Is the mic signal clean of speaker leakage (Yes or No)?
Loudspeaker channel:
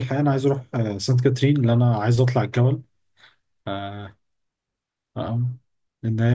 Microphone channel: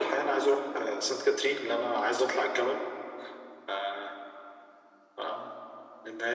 No